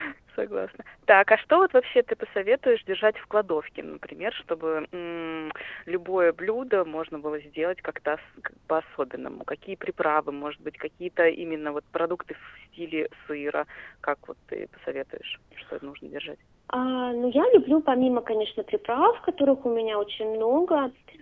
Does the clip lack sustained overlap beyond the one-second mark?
Yes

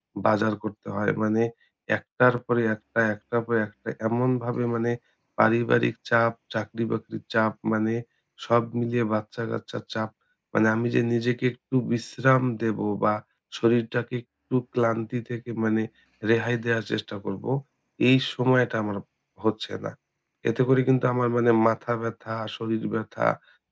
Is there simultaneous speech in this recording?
No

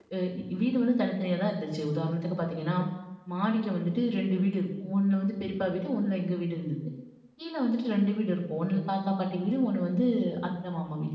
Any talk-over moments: No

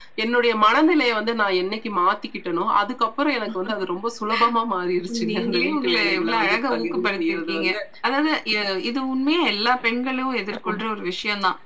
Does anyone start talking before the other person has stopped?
Yes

